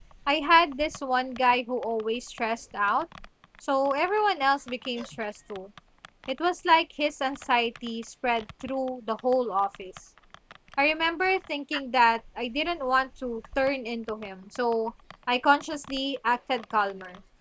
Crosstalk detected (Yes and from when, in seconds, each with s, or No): No